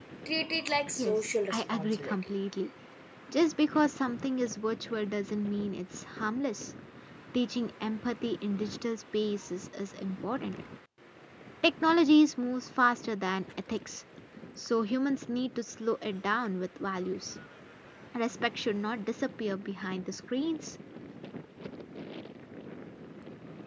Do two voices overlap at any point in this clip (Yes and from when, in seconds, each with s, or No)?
Yes, from 1.0 s